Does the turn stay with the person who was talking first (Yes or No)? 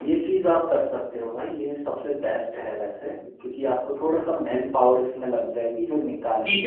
No